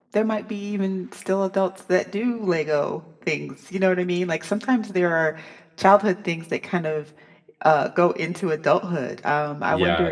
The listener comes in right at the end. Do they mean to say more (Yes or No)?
Yes